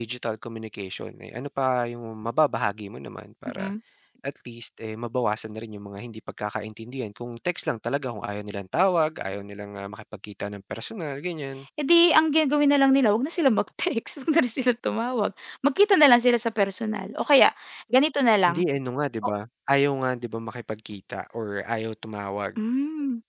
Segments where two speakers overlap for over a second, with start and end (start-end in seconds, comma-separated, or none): none